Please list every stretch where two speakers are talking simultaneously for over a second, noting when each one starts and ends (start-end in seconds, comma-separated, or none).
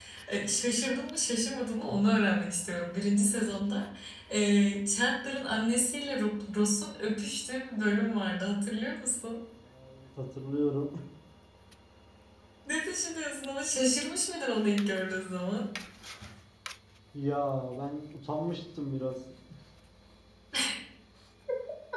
none